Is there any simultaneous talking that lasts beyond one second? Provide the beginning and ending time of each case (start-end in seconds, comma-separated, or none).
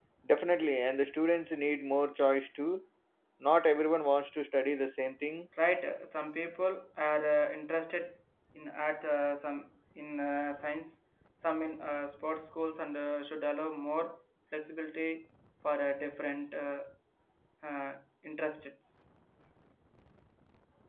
none